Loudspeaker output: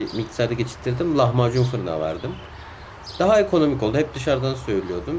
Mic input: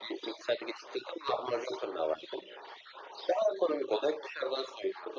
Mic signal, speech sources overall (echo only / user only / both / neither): echo only